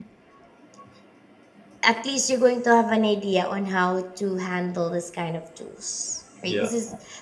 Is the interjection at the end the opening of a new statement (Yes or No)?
No